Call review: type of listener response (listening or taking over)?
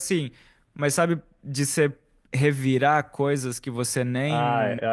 taking over